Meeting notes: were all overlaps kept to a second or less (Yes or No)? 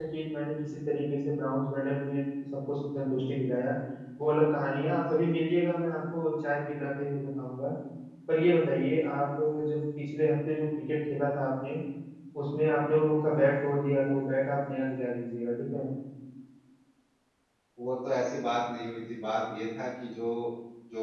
Yes